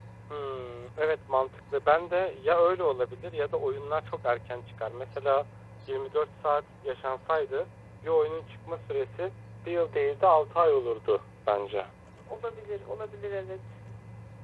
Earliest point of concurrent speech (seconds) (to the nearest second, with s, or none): none